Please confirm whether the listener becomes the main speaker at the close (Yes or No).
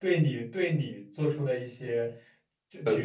No